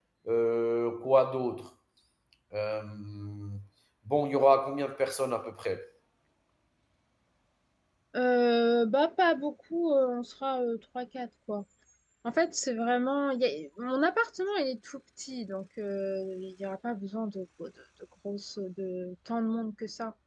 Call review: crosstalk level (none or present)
none